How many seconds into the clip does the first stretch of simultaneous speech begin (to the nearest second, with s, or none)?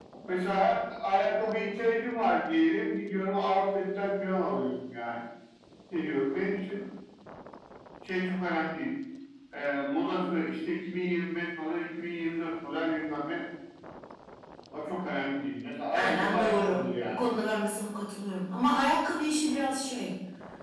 16 s